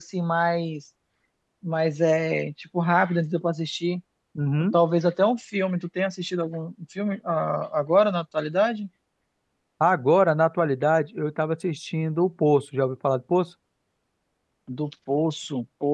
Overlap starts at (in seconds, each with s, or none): none